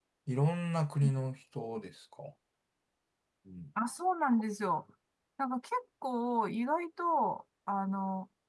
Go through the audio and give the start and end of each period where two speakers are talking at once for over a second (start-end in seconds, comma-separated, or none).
none